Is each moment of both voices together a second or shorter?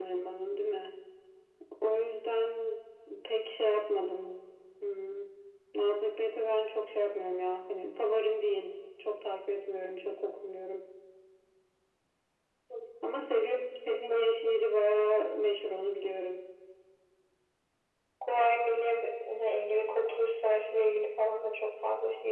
Yes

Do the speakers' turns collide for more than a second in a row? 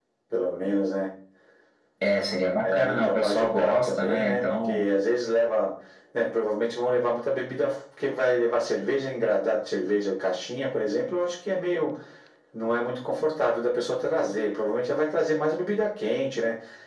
Yes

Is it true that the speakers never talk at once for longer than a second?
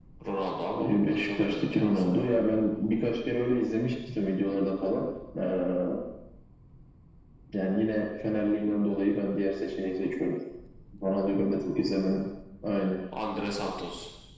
No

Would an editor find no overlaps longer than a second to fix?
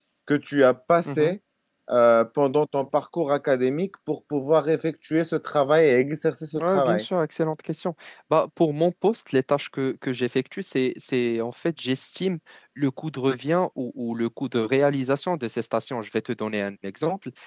Yes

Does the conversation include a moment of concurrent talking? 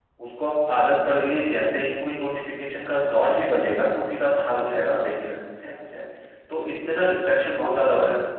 No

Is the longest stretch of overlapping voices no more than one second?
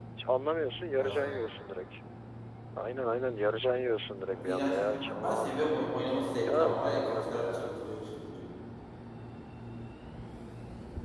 No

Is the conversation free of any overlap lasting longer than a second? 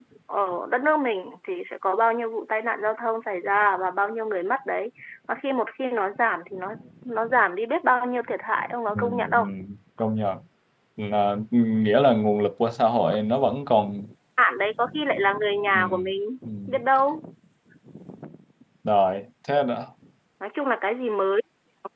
Yes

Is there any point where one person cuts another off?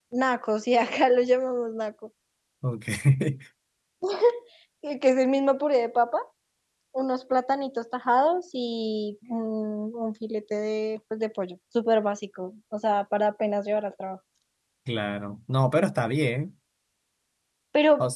No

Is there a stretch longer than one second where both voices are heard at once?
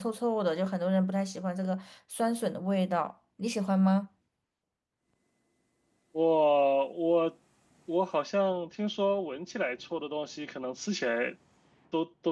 No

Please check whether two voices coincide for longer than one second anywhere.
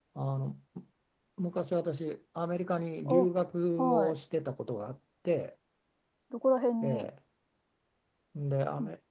No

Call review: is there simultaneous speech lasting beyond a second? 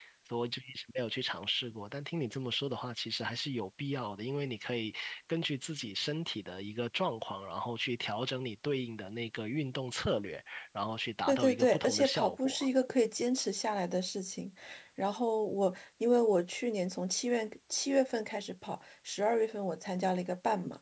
Yes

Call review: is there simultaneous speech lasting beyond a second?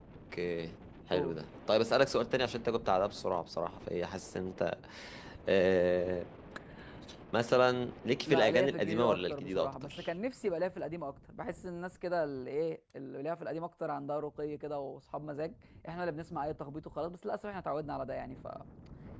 Yes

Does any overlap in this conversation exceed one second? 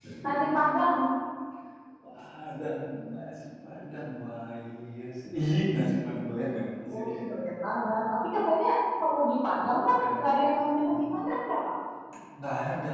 No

